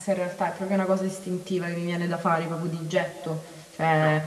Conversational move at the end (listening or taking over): listening